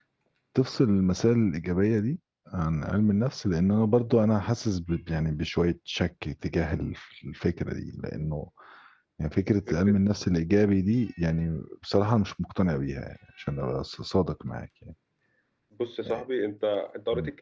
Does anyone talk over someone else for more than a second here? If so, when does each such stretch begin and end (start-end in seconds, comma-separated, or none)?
none